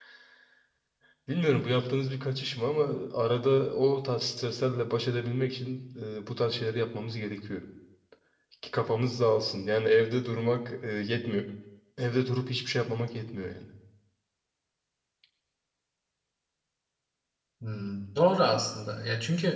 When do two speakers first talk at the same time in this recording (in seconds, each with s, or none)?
none